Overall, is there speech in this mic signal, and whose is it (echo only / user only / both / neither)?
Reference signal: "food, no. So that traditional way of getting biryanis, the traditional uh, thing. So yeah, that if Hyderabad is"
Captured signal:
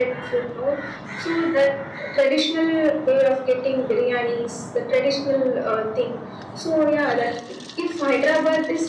echo only